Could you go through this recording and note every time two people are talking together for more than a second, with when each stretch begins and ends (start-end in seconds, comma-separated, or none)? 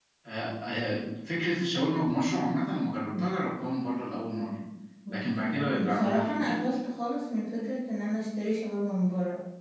5.1-6.6